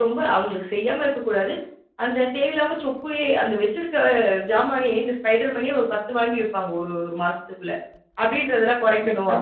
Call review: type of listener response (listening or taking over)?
listening